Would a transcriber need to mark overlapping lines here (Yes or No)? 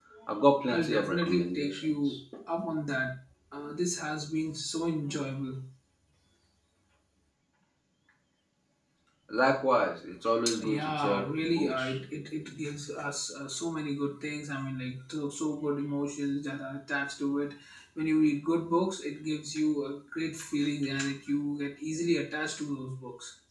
Yes